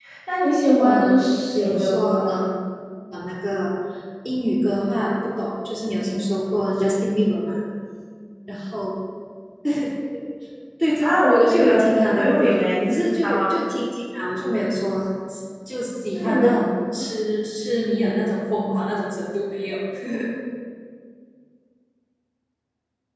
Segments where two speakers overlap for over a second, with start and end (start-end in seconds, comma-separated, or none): 0.8-2.4, 11.0-13.6